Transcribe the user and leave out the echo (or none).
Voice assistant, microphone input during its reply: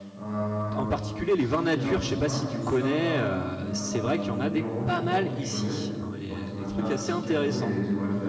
en particulier les vins nature, je ne sais pas si tu connais, euh, c'est vrai qu'il y en a des pas mal ici, hein, et, euh, des trucs assez intéressants.